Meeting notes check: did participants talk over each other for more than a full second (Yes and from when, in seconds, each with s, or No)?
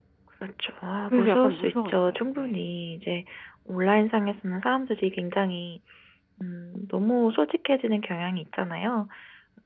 Yes, from 1.1 s